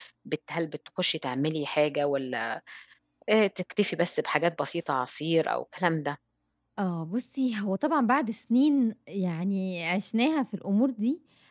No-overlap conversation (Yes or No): Yes